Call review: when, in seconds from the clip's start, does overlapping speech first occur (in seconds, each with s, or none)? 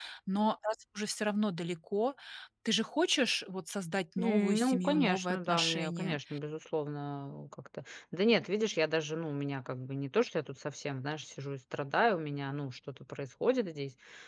4.2 s